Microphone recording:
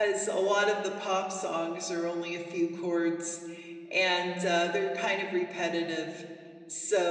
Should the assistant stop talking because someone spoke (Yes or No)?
Yes